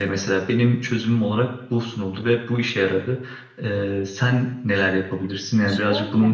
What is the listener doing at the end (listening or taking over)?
taking over